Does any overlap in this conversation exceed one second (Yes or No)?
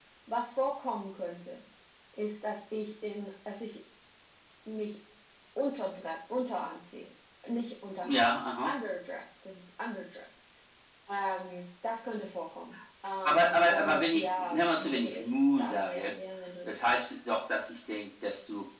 Yes